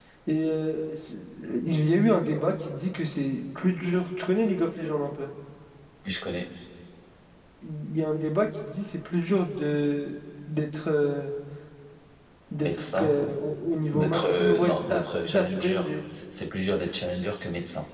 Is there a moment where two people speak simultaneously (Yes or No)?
Yes